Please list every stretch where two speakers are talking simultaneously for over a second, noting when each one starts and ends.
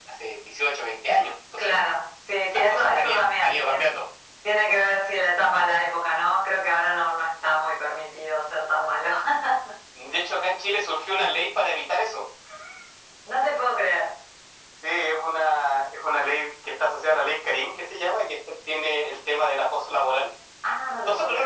2.5-3.9

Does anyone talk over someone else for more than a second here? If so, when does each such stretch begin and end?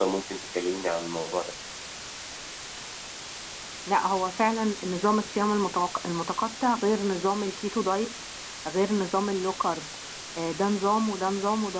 none

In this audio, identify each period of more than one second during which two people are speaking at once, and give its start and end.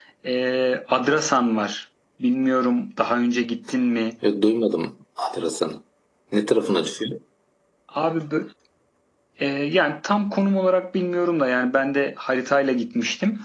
none

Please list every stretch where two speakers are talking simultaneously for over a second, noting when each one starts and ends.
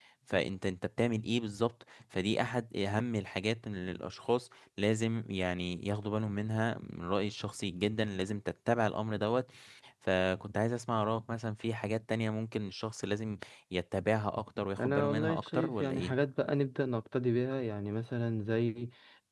14.8-16.1

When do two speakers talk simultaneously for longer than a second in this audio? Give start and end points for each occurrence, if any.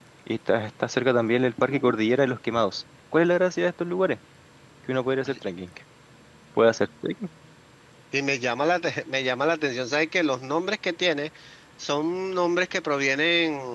none

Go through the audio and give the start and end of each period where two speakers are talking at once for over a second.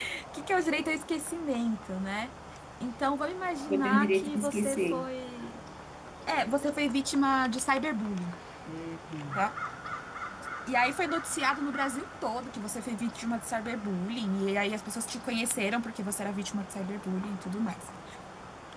3.7-5.1

